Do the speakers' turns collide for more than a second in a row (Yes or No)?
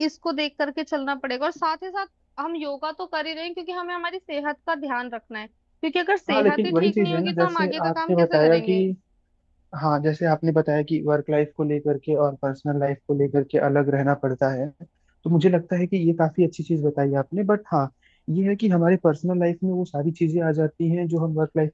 Yes